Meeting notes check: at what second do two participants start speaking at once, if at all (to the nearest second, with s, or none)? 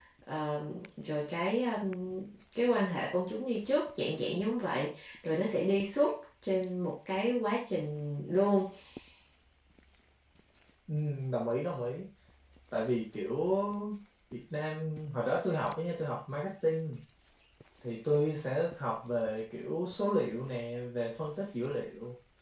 none